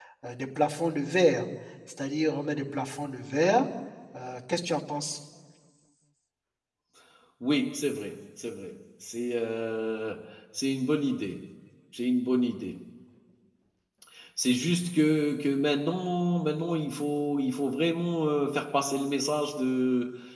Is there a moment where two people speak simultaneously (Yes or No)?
No